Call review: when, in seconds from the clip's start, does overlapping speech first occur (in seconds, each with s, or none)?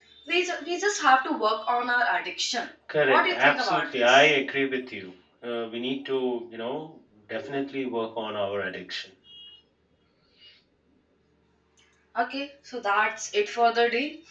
2.9 s